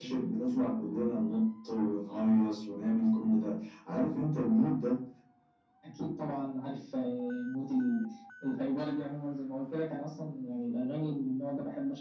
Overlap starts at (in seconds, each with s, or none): none